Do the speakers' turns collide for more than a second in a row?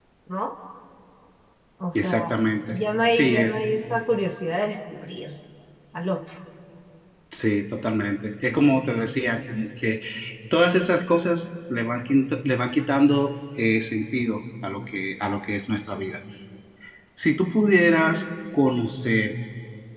No

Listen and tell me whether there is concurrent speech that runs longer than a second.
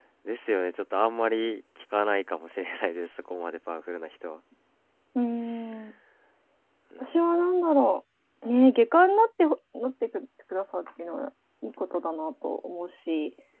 No

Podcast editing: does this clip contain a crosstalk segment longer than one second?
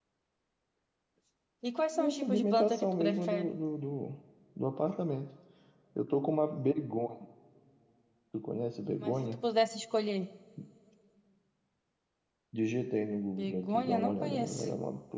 Yes, from 2.1 s

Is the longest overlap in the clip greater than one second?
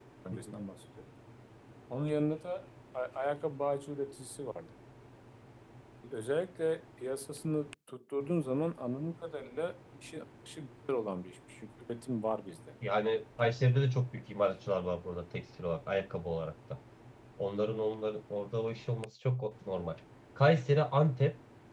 No

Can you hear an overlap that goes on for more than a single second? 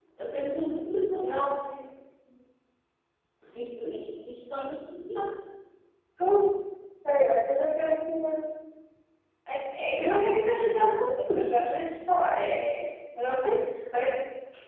No

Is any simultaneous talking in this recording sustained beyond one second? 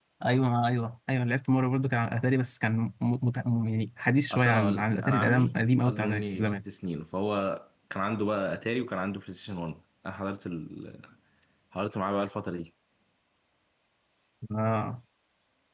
Yes, from 4.3 s

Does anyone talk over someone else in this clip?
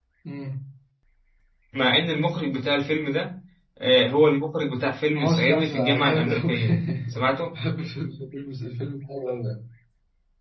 Yes, from 5.1 s

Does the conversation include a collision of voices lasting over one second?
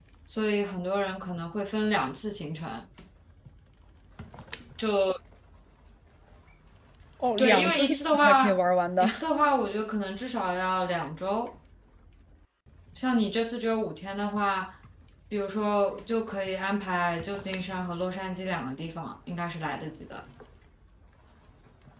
Yes, from 7.4 s

